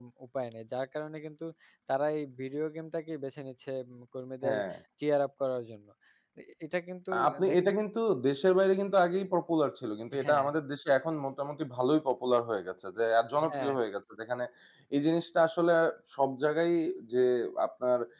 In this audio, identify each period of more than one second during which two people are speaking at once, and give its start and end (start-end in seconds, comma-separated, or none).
none